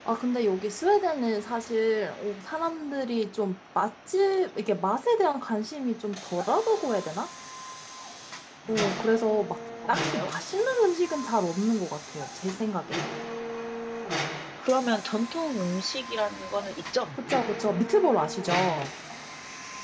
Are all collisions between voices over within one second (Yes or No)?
Yes